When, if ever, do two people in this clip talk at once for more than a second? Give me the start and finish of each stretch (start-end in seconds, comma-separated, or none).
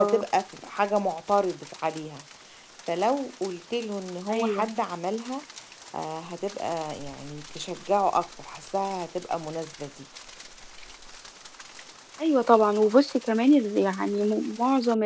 none